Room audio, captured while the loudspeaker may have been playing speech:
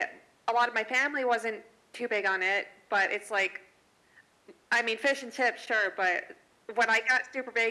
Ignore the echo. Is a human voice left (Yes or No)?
No